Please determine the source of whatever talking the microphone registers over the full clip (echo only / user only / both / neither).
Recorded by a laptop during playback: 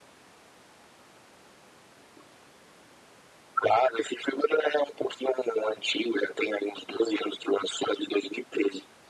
echo only